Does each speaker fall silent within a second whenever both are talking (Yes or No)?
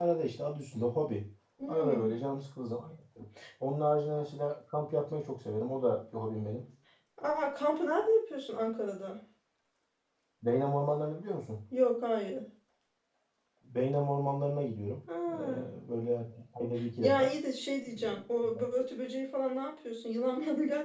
Yes